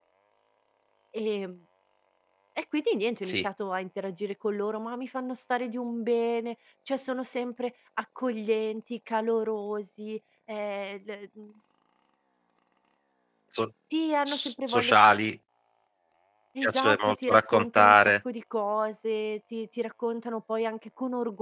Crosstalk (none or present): present